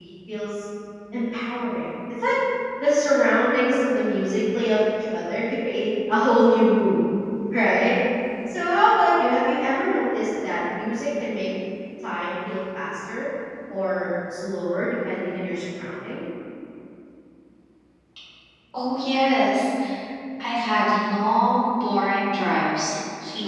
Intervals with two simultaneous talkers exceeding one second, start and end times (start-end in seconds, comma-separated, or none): none